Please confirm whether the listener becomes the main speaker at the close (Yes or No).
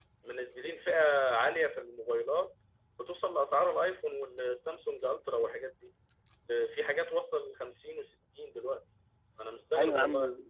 Yes